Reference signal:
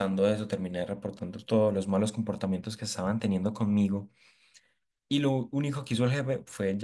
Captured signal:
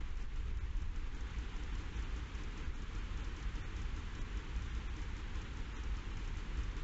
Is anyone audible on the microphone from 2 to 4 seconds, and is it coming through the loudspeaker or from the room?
neither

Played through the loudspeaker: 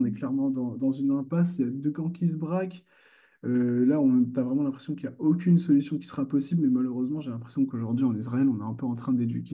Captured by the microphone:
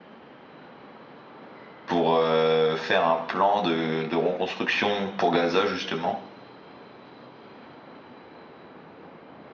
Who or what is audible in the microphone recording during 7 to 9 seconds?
neither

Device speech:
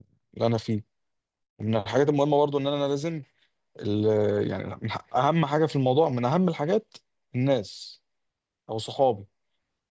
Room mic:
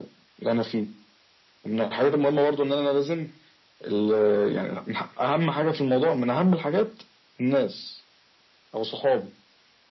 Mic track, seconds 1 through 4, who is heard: echo only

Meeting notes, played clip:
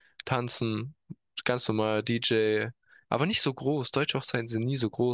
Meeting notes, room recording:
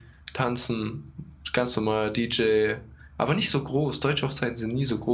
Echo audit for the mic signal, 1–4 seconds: echo only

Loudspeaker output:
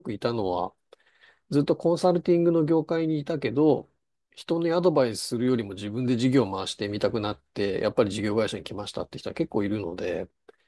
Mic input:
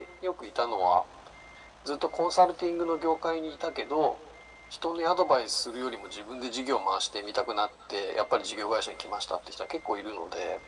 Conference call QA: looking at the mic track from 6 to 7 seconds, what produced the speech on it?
echo only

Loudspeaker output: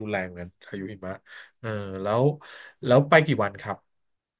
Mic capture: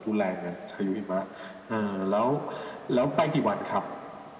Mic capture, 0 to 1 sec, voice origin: echo only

